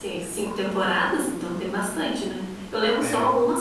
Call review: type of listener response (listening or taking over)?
listening